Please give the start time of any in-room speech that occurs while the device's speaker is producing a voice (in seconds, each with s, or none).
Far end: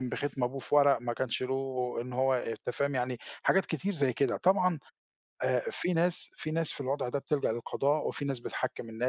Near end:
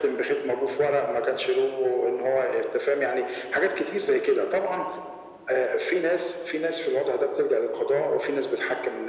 none